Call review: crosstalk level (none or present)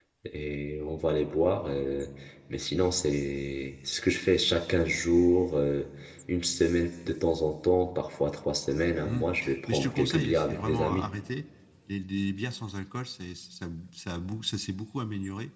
present